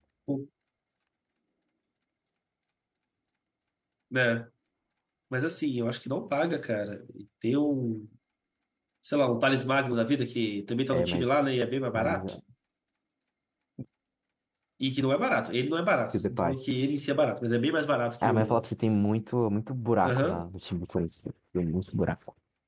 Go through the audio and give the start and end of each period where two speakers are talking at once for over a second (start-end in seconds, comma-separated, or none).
none